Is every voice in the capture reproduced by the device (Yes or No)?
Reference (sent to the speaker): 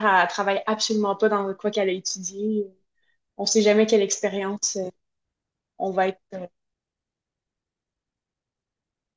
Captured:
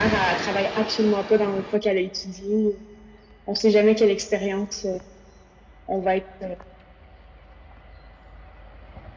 Yes